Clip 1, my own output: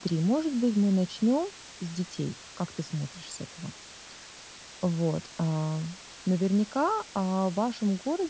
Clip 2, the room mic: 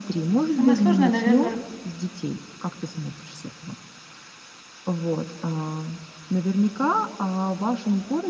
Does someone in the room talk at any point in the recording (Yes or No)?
Yes